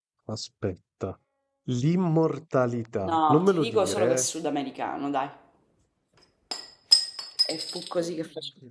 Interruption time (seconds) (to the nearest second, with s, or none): 3 s